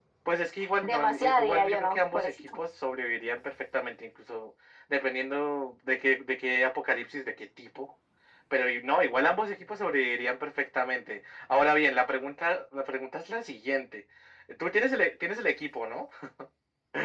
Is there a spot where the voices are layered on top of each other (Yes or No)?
Yes